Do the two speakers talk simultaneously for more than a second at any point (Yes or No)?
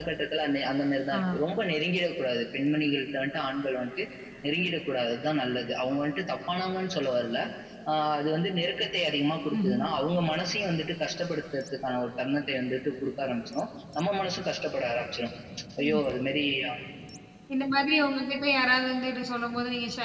No